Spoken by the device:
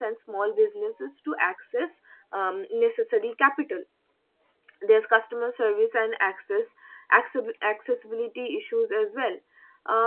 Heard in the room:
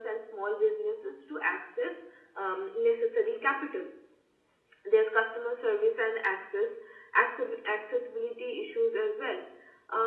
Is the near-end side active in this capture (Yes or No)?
No